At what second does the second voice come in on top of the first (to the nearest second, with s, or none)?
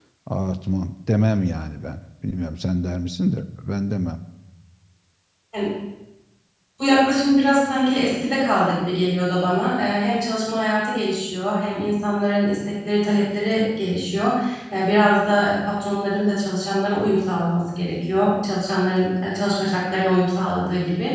none